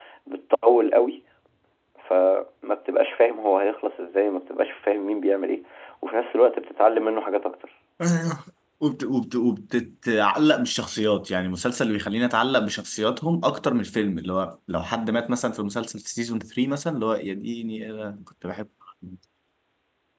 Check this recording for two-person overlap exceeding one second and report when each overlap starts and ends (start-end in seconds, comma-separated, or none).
none